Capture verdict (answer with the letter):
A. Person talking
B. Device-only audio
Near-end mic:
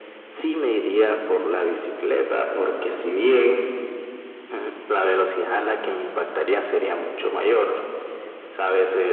B